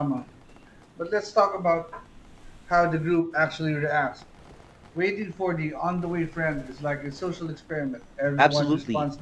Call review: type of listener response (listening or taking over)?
taking over